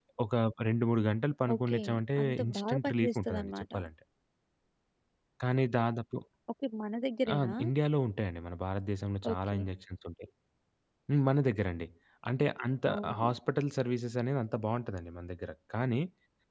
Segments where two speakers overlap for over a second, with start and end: 2.2-3.6

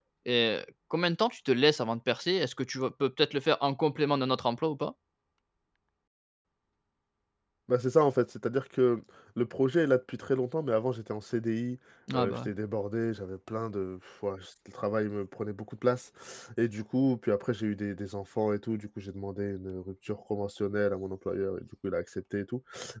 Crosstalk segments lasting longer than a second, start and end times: none

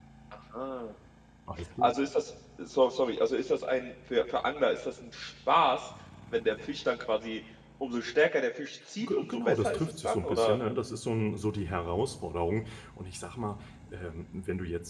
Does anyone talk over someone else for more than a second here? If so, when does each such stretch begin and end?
9.0-10.6

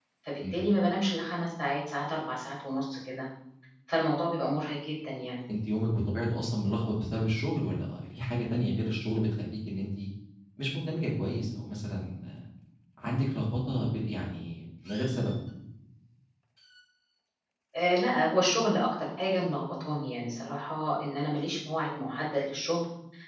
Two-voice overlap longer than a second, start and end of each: none

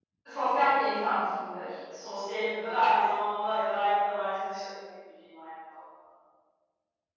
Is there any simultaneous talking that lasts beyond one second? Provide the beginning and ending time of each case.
none

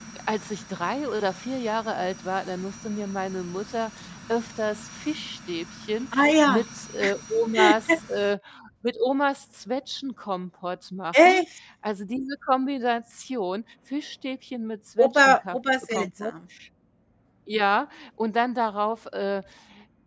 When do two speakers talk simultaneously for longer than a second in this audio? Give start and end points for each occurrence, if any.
15.0-16.3

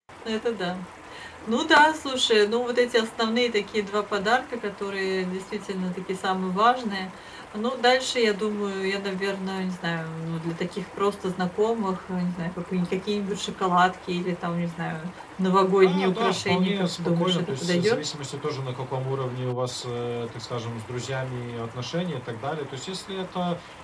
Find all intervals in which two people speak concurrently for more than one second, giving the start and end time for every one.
15.8-18.0

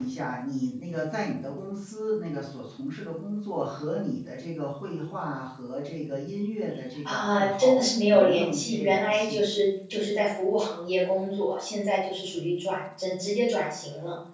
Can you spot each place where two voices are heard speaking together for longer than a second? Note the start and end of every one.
7.0-9.4

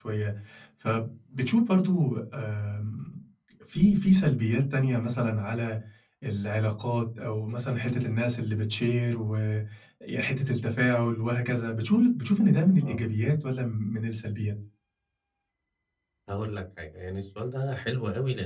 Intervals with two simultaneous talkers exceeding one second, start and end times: none

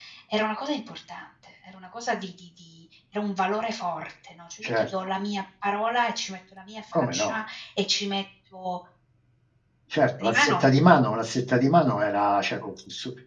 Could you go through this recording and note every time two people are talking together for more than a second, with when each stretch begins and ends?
none

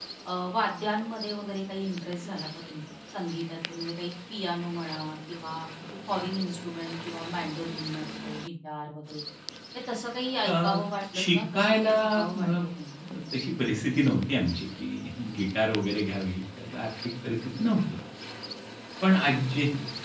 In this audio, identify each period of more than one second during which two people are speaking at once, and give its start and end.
11.1-12.5

